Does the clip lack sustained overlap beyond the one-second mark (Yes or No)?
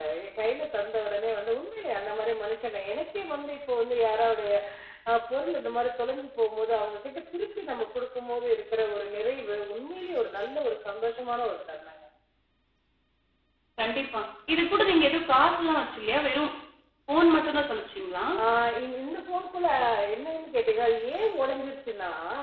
Yes